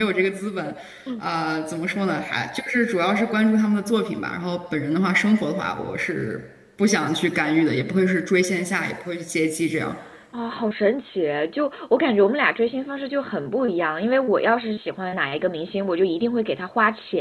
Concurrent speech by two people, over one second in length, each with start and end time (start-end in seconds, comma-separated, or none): none